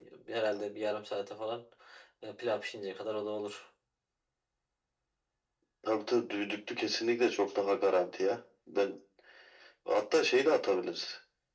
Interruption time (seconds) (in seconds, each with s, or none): none